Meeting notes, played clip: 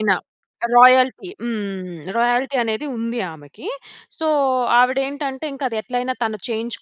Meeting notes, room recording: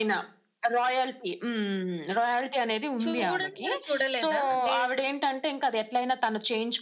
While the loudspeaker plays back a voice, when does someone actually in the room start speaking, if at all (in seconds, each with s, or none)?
3.0 s